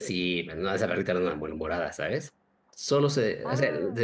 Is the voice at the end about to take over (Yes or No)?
No